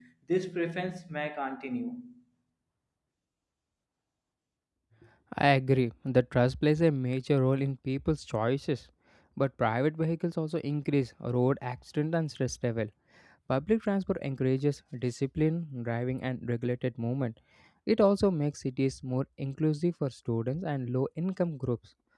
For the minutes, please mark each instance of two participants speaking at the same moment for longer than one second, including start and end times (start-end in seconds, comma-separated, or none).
none